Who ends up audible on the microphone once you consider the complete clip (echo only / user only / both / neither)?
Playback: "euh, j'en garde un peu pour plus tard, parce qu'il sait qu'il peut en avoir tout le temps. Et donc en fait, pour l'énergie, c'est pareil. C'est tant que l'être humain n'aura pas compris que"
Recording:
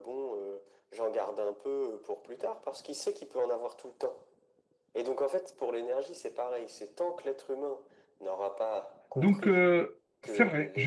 both